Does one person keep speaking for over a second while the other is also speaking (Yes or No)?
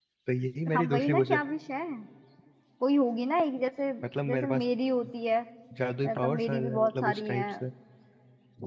Yes